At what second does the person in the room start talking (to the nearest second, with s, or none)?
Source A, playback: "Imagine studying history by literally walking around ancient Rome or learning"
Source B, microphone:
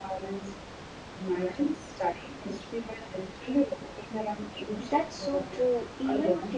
5 s